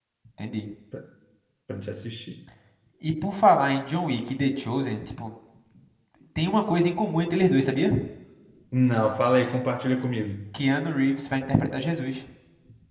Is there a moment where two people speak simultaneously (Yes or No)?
No